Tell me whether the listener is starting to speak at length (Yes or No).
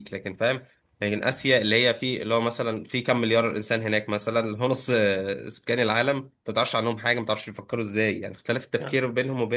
No